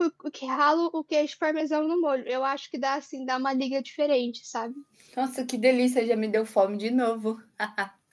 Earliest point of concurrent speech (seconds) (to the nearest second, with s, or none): none